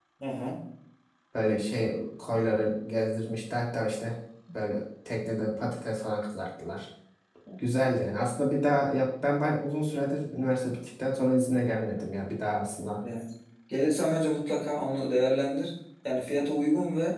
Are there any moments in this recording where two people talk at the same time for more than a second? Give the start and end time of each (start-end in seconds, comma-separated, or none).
none